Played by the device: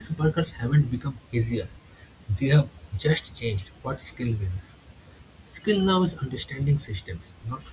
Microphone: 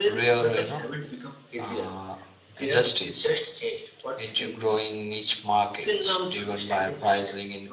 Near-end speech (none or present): present